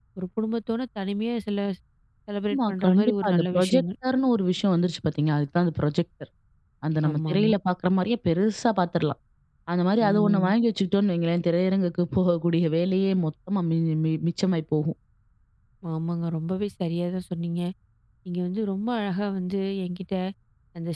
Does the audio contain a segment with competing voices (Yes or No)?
Yes